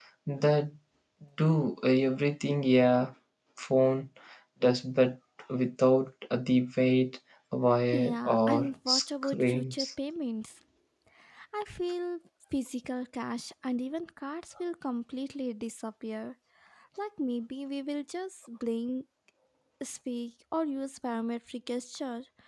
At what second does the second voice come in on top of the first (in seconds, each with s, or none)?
7.9 s